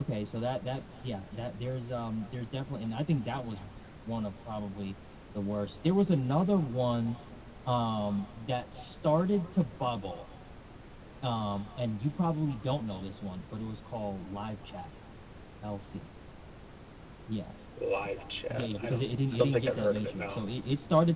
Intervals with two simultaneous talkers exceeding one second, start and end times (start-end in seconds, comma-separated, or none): 18.5-20.4